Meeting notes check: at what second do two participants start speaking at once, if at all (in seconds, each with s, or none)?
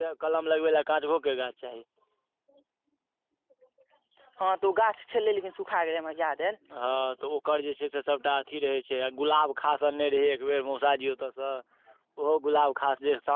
none